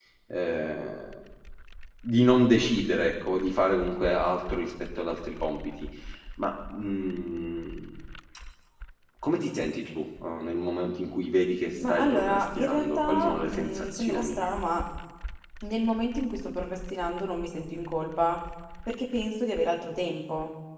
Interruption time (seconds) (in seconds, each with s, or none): 11.8 s